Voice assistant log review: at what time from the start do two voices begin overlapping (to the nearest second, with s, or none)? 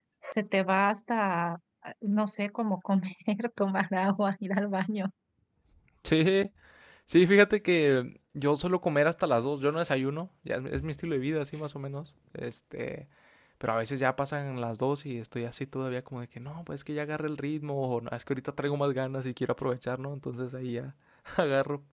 none